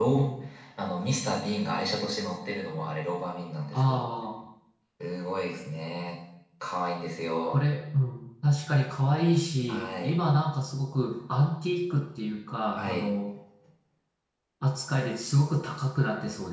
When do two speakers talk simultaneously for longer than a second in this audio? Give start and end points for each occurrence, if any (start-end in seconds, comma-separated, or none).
none